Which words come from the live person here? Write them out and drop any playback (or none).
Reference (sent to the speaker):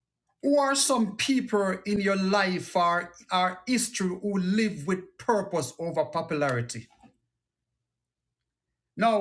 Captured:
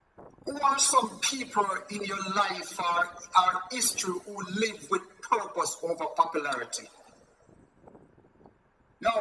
none